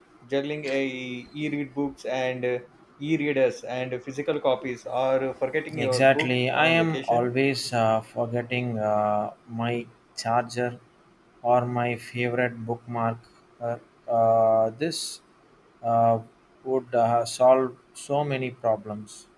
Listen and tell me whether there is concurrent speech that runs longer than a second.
Yes, from 5.7 s

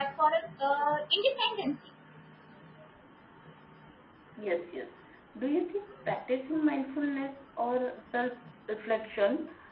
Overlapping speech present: No

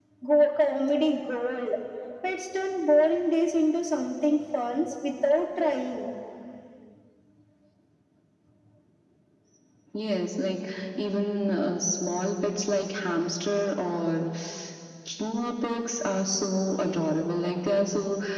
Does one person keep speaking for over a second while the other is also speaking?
No

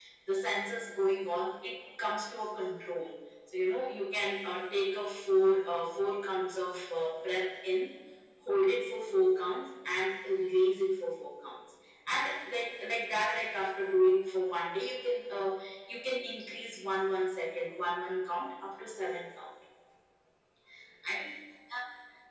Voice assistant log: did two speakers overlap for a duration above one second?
No

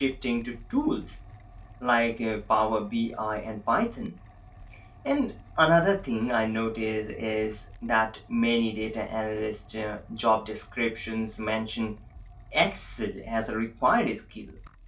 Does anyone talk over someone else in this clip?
No

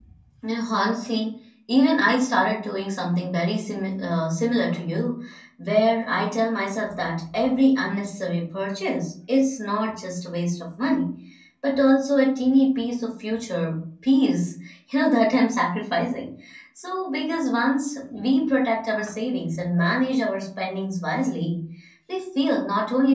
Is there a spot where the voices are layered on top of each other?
No

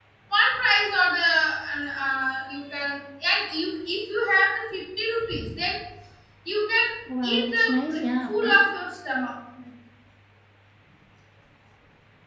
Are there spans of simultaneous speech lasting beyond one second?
Yes, from 7.2 s

